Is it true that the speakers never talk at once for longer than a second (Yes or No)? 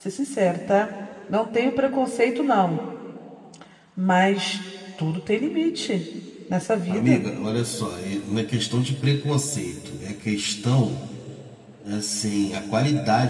Yes